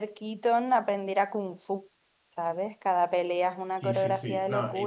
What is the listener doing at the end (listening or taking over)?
taking over